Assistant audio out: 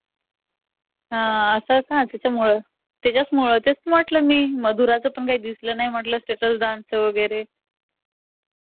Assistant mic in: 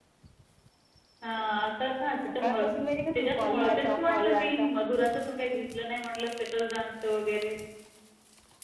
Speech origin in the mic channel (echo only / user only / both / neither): both